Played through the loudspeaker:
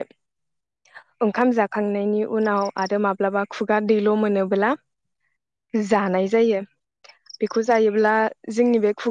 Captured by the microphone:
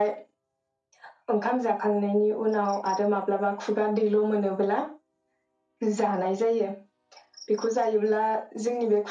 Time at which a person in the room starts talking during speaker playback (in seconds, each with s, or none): none